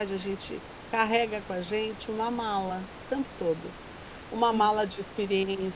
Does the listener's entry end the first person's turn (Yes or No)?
No